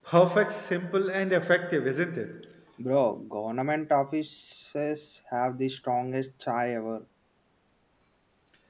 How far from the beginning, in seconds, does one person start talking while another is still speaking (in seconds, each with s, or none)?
none